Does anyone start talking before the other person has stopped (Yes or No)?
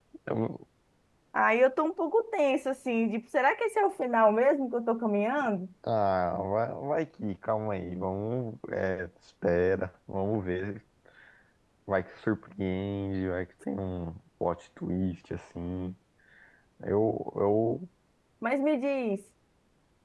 No